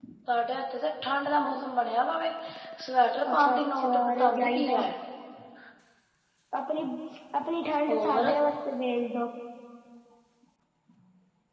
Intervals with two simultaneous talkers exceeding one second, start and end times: 3.3-4.8

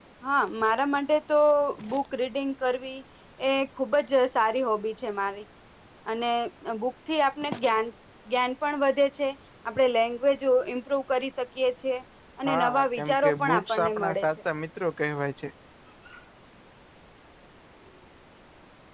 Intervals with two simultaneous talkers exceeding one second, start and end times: 12.4-14.3

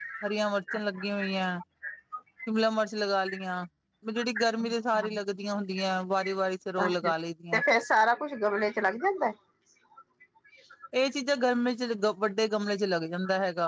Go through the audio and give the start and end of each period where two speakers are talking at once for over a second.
none

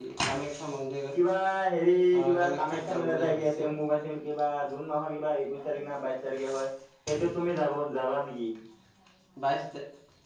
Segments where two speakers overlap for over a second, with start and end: 2.2-3.7

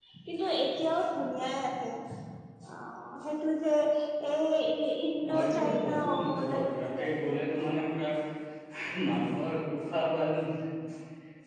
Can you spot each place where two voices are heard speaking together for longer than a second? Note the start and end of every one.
5.3-7.6

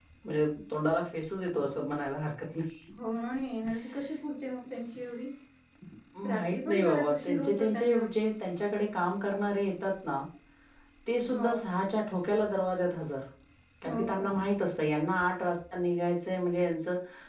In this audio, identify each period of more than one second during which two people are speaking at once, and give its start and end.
6.3-8.0

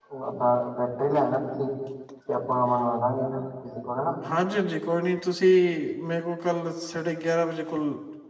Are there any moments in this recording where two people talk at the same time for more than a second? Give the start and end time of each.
none

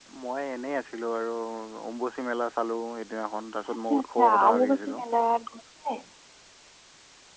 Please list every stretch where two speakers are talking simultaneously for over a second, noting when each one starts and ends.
3.8-5.0

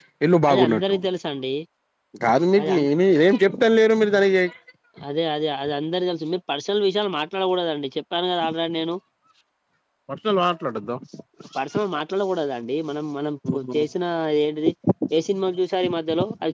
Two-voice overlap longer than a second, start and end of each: none

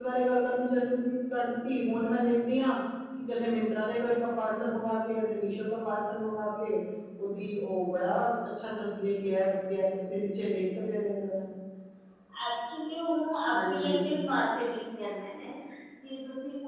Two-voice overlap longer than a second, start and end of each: none

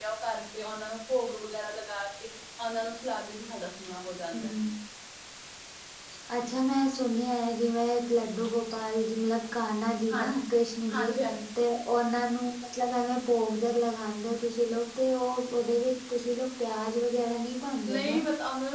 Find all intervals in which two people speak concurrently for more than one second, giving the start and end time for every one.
none

